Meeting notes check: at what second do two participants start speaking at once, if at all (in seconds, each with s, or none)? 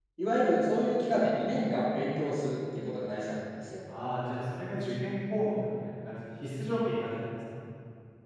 none